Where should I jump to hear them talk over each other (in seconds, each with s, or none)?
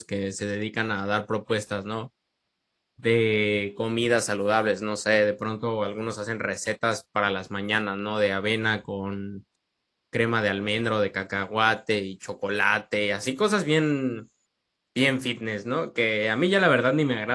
none